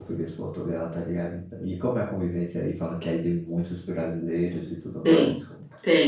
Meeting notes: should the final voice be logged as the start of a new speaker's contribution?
Yes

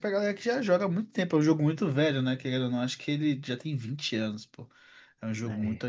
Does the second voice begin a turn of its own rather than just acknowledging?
No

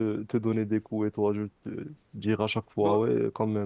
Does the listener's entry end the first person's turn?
No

